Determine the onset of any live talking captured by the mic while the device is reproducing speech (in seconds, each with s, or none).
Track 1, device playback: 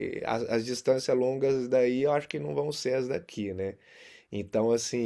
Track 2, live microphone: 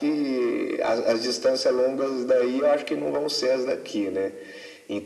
none